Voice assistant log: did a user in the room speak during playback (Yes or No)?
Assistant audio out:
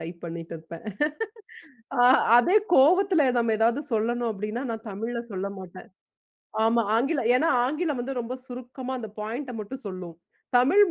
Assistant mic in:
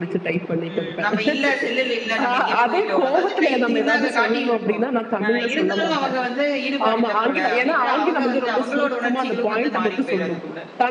Yes